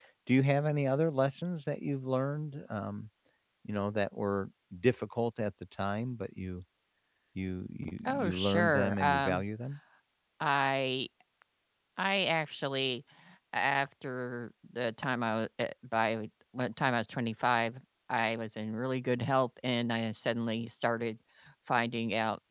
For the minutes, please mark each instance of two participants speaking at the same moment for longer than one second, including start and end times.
8.1-9.4

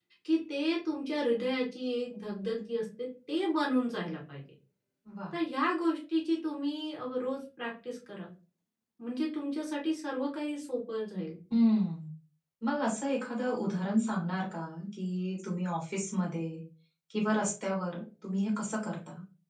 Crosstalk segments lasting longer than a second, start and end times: none

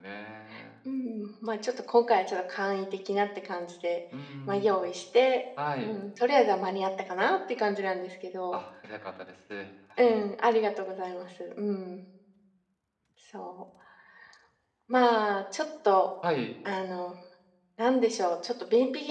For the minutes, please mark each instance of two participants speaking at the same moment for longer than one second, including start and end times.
none

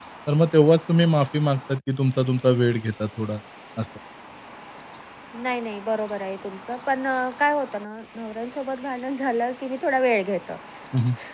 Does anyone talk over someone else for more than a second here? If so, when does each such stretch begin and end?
none

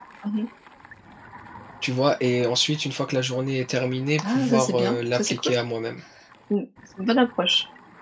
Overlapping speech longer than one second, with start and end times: 4.3-5.5

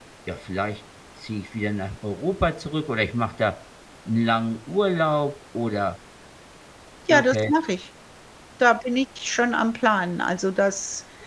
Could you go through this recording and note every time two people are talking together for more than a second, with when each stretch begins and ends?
none

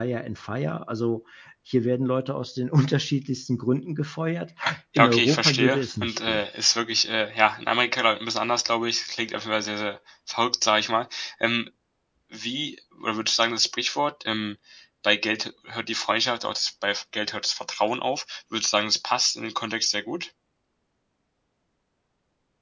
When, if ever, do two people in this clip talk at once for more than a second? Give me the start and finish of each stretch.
5.0-6.4

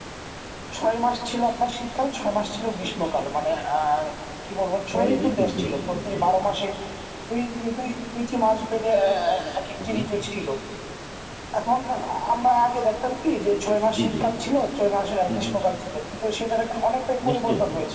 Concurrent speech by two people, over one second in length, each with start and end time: 4.9-6.3

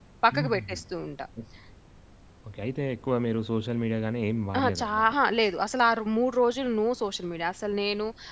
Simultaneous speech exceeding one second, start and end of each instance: none

